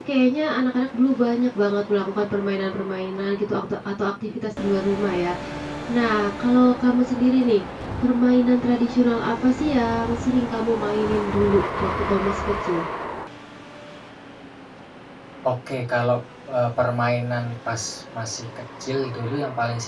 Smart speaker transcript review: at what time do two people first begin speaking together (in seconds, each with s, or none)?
none